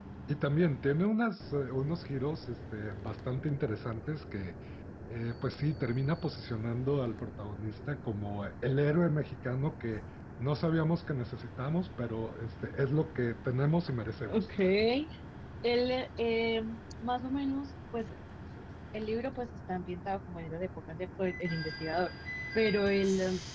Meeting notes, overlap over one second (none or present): none